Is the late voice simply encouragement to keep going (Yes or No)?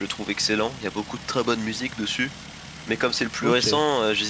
Yes